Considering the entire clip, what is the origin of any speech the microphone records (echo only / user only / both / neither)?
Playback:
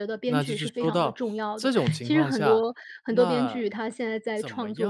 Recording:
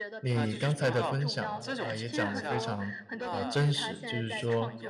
both